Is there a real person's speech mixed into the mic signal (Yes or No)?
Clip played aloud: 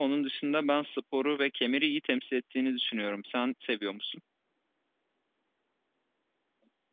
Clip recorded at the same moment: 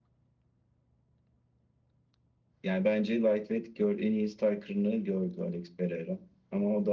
Yes